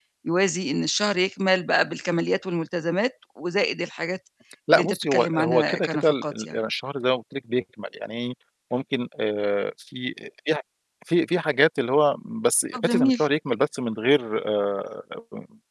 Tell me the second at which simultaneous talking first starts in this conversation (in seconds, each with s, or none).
4.7 s